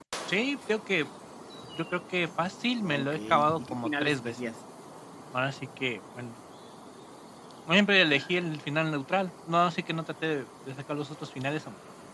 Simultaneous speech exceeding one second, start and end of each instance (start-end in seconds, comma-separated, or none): 2.8-4.4